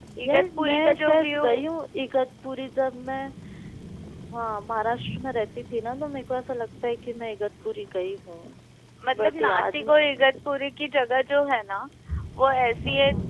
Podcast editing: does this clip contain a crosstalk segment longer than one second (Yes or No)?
Yes